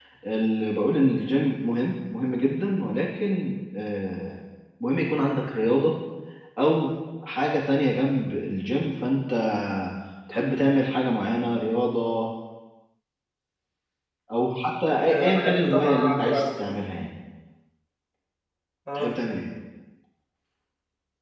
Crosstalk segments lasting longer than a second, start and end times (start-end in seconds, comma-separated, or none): 15.1-16.4